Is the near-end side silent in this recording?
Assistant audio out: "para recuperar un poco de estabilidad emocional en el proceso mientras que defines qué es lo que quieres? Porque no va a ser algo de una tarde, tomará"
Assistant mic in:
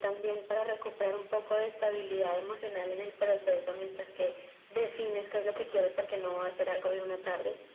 Yes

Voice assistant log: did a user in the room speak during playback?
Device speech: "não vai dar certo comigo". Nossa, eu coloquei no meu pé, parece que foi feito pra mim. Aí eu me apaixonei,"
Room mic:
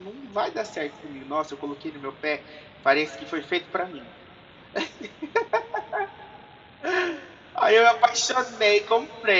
No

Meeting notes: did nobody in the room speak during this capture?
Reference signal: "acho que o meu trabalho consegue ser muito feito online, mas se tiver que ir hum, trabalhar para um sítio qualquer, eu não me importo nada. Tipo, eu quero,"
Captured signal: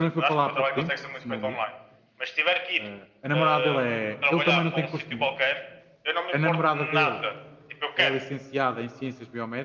No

